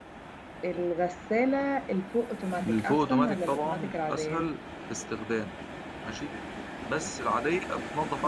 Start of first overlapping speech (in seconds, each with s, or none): 2.6 s